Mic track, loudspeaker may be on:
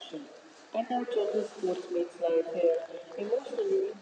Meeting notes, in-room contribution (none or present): none